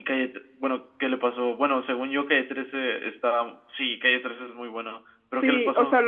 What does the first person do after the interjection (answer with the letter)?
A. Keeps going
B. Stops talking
B